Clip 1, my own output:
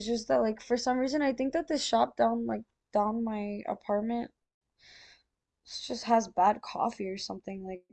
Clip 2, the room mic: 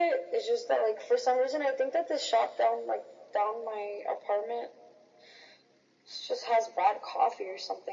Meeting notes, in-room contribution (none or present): none